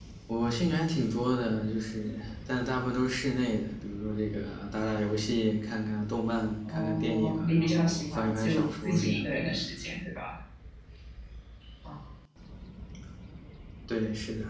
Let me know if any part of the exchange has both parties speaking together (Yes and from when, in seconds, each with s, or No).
Yes, from 6.6 s